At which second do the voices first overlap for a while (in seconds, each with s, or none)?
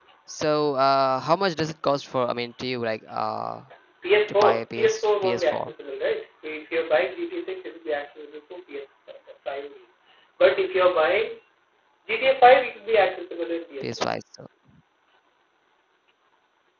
4.3 s